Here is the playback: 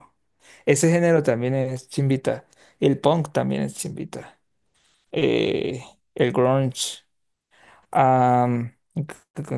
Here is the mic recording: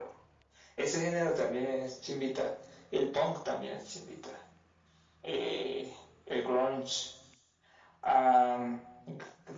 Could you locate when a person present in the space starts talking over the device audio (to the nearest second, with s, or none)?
none